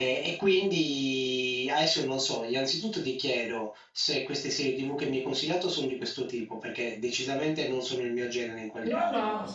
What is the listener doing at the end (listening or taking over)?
taking over